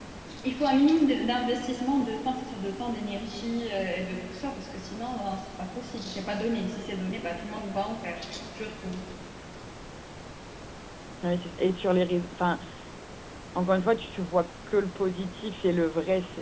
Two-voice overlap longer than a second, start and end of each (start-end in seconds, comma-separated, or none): none